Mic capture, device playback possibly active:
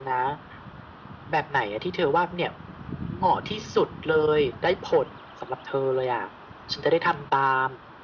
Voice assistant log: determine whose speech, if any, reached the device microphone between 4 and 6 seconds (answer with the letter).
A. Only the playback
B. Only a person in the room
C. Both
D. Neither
A